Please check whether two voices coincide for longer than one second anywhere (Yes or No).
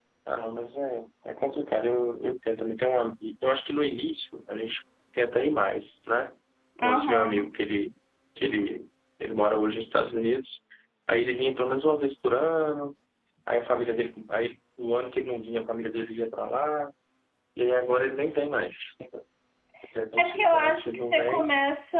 Yes